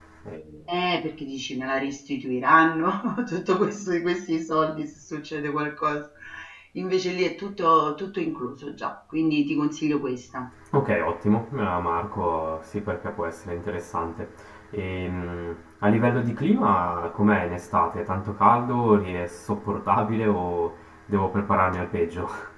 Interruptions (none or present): none